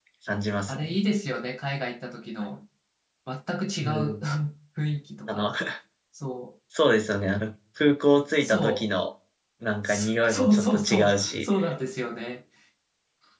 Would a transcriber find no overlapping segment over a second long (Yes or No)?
No